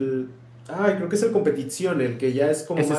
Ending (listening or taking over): taking over